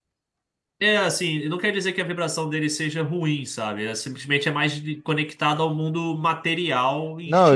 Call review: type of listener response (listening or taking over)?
taking over